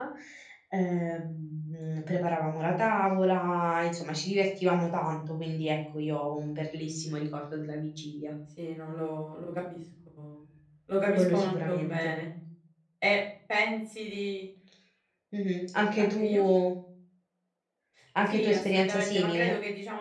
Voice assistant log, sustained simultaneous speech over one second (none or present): present